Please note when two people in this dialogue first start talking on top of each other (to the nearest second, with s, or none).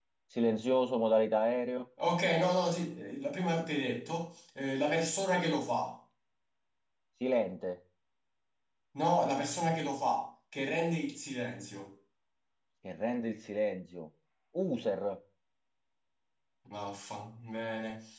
none